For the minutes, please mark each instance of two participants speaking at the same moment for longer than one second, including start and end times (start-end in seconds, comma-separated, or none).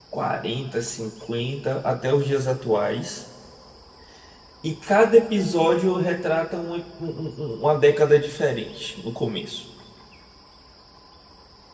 none